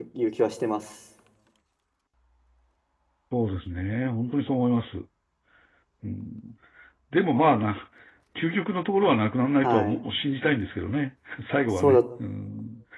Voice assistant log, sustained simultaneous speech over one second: none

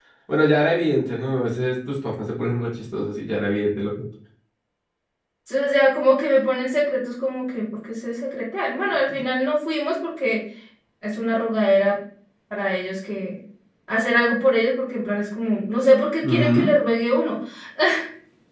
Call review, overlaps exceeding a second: none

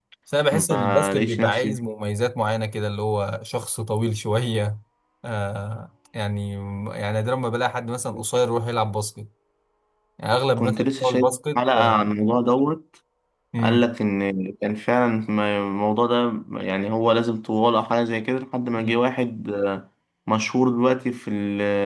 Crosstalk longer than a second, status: present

